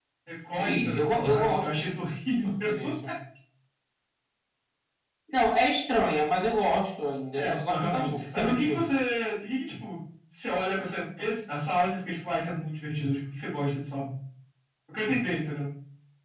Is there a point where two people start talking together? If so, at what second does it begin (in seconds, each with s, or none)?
0.6 s